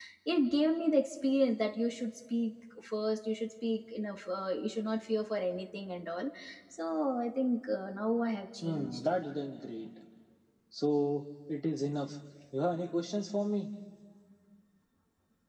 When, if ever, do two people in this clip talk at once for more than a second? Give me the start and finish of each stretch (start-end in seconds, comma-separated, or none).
none